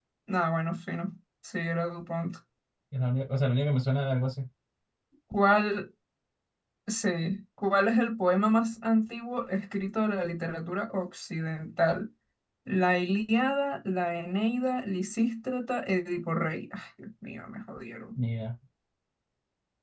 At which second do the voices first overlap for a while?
none

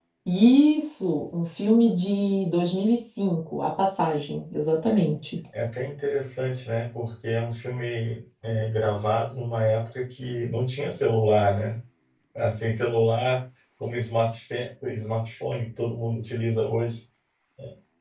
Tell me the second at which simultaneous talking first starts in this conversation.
none

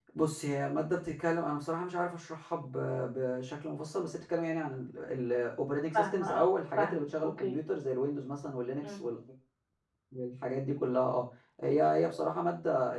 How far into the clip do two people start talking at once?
5.9 s

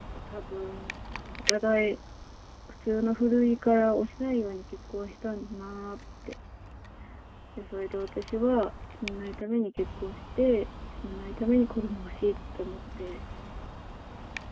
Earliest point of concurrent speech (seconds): none

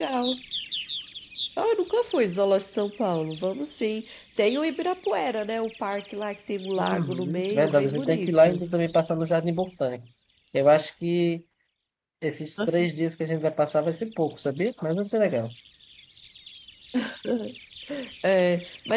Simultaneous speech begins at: 6.8 s

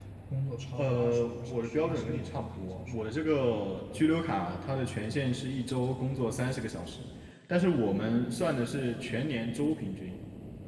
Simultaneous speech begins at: 0.8 s

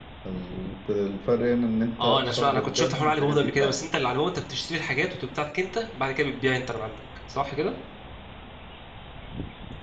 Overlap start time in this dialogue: 2.0 s

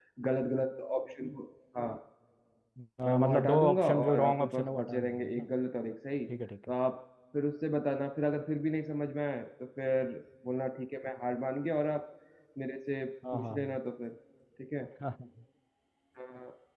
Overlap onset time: 3.1 s

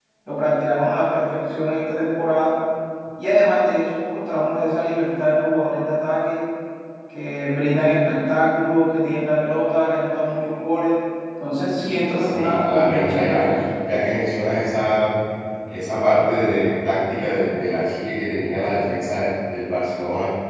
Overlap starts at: 12.2 s

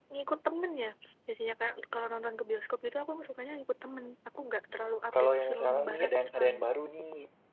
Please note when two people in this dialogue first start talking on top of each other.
5.1 s

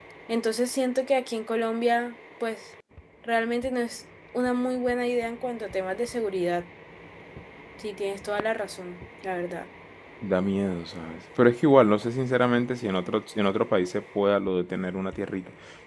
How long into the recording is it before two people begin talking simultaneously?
none

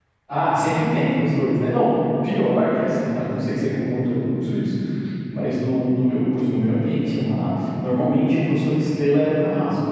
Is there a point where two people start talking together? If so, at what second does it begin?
none

